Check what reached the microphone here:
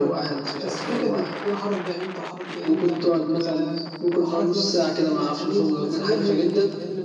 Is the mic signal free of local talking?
No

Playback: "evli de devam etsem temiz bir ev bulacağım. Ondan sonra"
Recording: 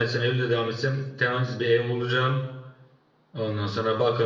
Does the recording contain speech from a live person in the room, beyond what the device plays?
No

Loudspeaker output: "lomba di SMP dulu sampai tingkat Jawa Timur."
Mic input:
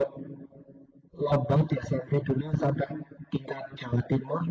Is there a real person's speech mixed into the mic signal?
No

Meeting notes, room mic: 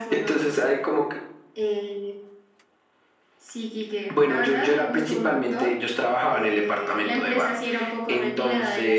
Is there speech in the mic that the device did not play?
No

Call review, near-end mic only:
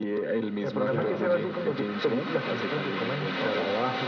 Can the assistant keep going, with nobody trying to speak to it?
No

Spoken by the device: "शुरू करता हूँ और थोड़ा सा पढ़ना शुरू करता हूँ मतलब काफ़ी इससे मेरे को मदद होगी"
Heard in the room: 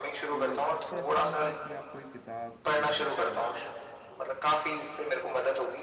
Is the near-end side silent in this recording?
No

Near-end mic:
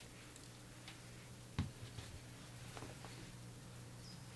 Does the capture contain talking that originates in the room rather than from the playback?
No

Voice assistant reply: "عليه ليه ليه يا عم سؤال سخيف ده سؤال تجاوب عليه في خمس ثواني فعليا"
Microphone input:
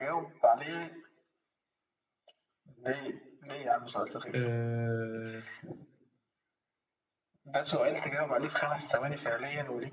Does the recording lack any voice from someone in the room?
No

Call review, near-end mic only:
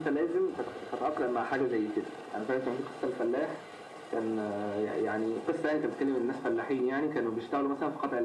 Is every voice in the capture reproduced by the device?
Yes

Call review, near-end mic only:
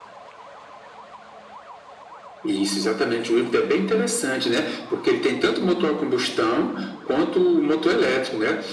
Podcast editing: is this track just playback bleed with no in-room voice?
Yes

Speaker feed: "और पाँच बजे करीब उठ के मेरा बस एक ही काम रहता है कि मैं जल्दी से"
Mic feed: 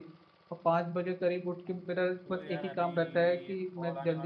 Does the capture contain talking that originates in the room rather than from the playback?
Yes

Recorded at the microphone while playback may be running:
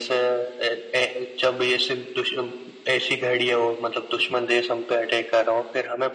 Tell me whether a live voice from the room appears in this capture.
No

